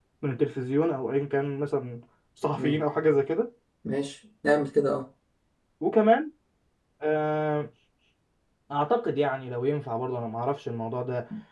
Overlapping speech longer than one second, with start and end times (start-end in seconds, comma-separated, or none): none